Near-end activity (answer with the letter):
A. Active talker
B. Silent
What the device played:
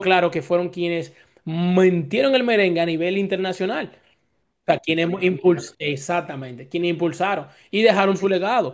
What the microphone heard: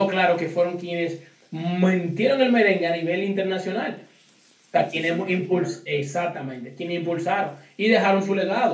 B